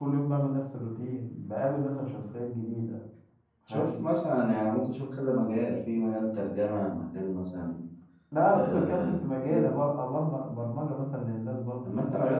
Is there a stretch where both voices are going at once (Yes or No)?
Yes